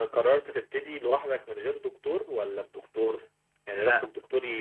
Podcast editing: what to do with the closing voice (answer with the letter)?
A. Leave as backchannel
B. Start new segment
A